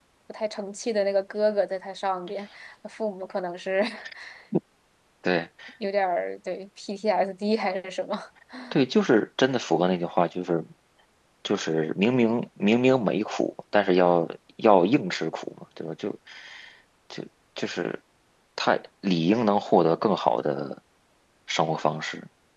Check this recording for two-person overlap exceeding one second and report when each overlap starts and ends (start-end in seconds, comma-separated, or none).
none